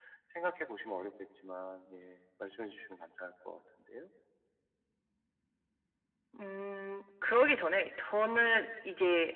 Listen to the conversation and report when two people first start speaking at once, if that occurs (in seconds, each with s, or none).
none